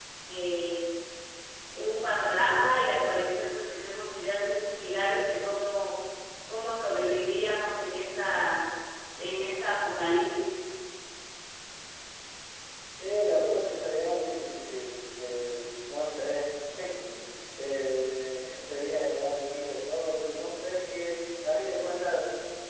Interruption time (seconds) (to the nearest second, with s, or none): none